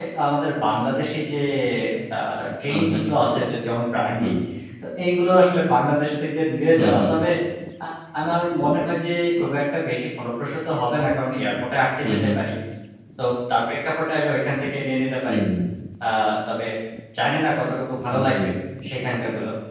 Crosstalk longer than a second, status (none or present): none